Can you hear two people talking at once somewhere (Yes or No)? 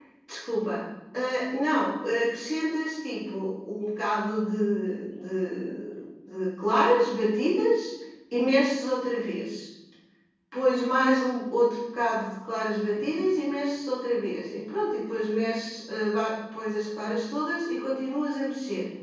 No